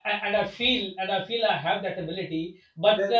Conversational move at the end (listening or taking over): listening